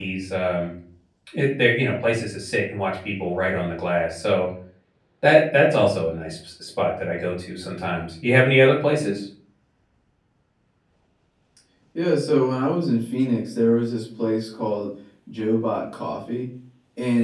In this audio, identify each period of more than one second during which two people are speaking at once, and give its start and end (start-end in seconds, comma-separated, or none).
none